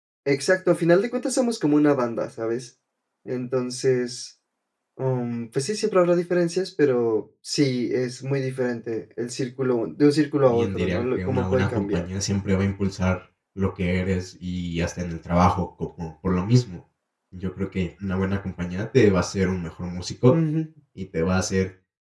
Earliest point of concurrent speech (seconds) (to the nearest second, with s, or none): 10 s